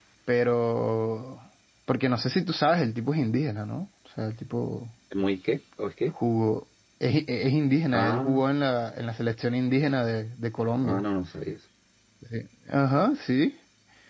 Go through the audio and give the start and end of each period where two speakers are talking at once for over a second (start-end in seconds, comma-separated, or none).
none